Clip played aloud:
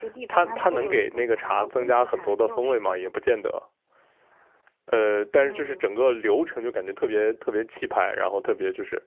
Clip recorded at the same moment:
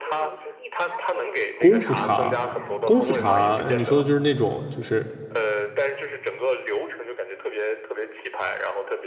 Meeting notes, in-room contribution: present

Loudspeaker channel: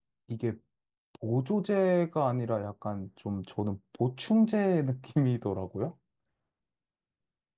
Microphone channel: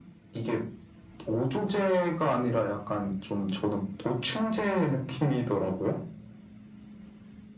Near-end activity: none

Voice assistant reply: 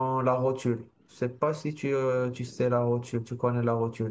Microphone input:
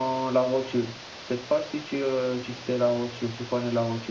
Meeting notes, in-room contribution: none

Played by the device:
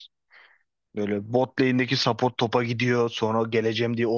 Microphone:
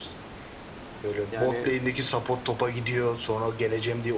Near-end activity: present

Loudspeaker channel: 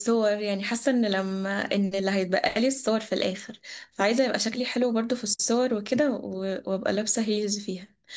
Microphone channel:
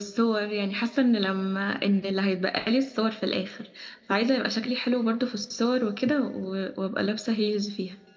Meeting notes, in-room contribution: none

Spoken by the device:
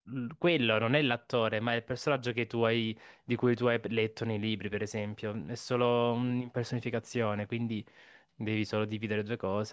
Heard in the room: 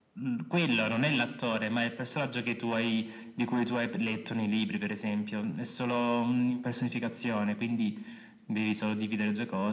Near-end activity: none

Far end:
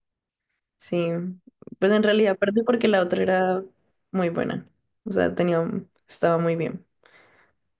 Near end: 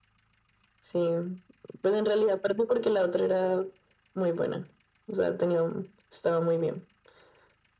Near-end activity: none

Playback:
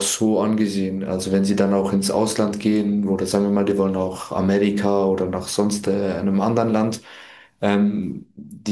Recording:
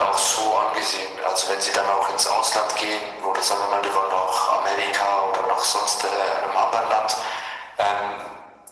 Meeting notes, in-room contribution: none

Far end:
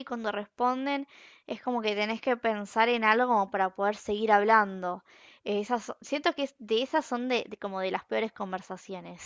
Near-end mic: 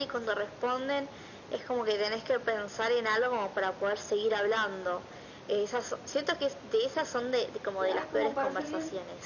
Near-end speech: present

